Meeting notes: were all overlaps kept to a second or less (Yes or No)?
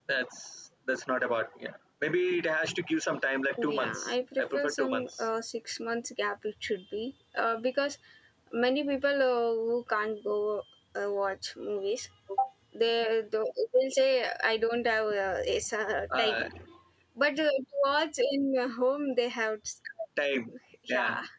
No